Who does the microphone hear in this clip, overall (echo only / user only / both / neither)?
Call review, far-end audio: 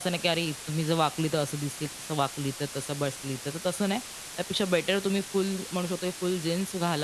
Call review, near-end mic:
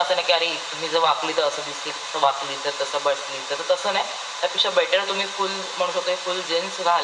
echo only